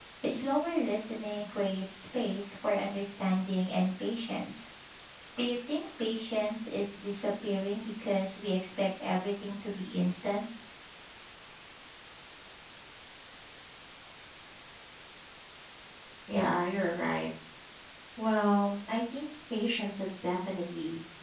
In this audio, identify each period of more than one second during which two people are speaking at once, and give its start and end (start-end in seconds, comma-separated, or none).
none